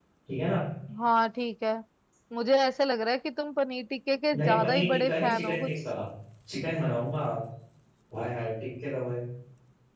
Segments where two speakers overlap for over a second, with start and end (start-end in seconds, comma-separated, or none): 4.3-5.7